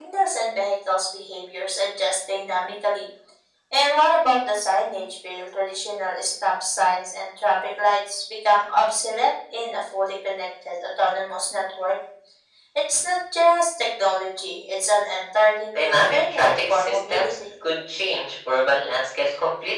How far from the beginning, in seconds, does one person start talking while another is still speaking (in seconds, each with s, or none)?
15.7 s